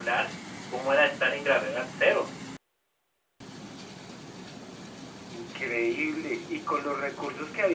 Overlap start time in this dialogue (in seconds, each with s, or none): none